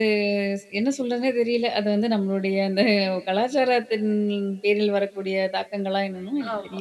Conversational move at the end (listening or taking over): taking over